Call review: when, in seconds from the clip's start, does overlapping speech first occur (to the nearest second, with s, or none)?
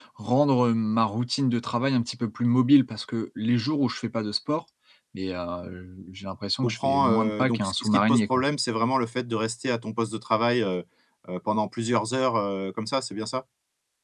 7 s